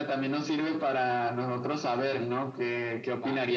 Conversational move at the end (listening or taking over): listening